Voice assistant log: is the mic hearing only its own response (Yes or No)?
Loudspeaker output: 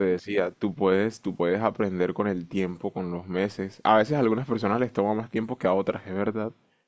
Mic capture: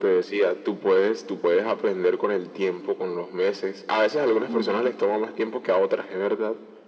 No